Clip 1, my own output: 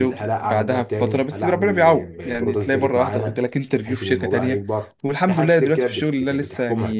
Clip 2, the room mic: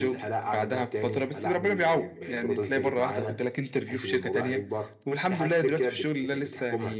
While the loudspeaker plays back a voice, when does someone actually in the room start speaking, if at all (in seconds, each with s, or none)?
none